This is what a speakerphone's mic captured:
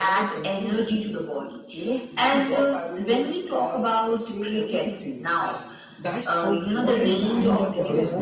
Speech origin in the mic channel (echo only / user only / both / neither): both